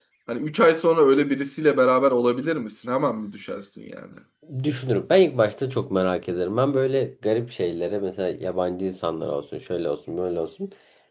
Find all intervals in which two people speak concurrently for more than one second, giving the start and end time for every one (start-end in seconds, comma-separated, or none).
none